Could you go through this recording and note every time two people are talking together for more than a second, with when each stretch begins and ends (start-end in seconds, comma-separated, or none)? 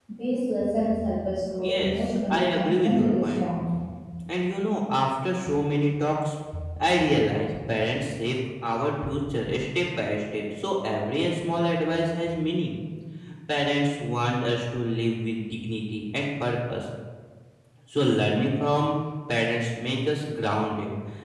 1.6-3.5